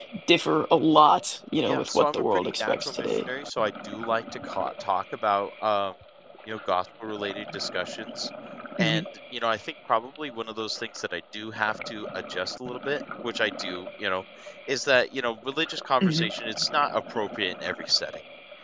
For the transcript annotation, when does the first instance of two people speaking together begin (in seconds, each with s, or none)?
1.6 s